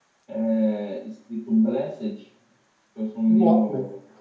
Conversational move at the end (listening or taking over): listening